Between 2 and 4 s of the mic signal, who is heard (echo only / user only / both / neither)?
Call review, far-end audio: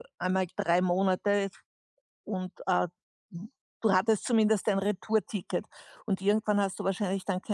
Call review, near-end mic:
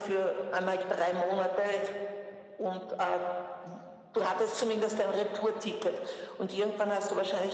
echo only